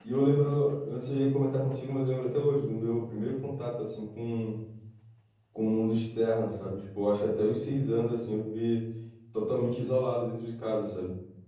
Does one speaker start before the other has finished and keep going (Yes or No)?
No